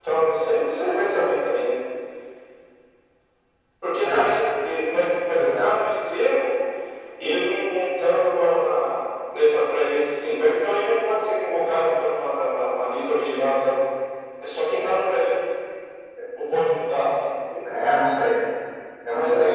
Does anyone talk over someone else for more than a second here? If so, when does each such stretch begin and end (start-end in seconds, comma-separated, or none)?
none